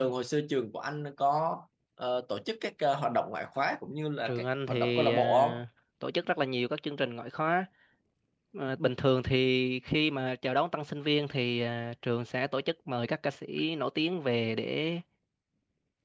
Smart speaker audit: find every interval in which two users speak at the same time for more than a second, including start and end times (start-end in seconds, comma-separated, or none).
4.2-5.6